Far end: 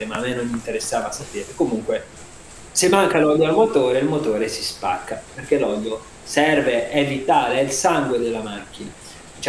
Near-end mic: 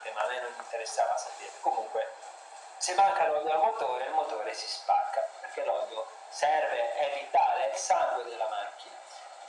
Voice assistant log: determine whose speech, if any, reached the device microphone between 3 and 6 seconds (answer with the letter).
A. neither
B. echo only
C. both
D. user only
B